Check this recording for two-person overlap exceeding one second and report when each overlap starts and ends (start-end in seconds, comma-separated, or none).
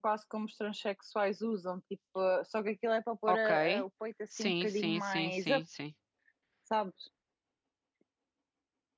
4.4-5.6